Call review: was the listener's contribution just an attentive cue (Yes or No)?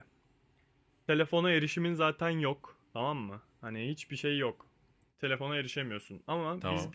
Yes